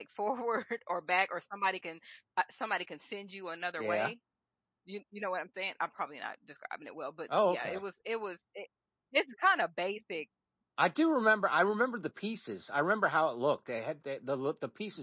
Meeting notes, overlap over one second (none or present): none